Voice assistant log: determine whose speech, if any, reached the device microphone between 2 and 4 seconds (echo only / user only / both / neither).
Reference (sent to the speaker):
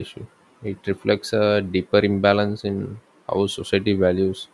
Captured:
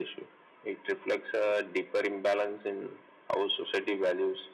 echo only